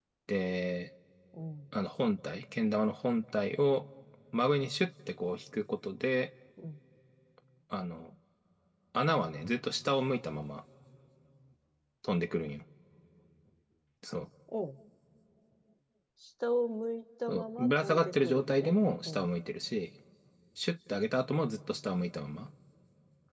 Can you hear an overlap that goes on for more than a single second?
Yes, from 17.3 s

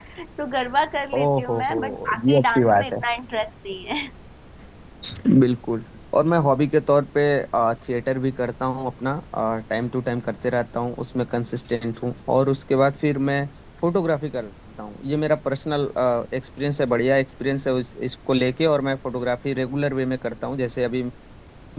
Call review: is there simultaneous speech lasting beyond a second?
Yes, from 1.1 s

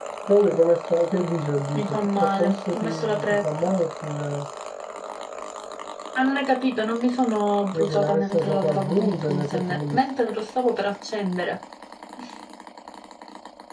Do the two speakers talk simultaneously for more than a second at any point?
Yes, from 1.7 s

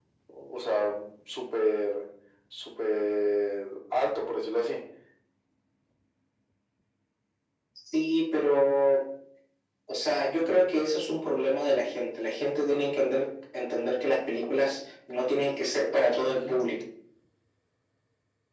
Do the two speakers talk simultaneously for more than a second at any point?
No

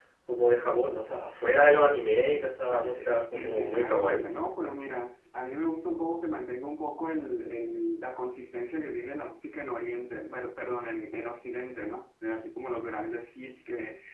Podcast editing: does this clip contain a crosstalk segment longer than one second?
Yes, from 2.7 s

